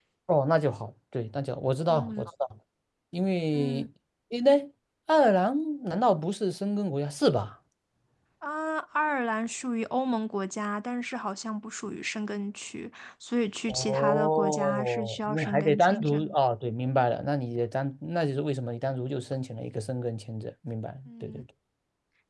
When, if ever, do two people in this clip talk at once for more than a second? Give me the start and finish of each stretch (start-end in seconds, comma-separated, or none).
13.7-16.2